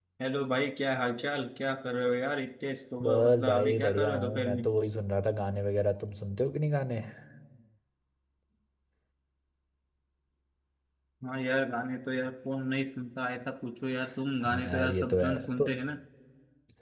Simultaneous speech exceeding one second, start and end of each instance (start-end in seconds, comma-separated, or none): 3.0-4.6, 14.4-15.7